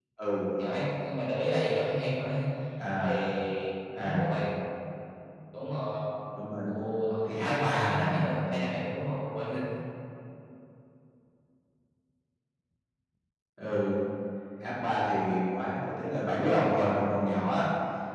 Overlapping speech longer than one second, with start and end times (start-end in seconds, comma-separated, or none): 6.7-8.8